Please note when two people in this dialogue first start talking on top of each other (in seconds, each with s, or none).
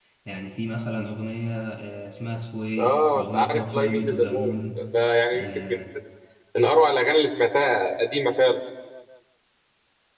2.8 s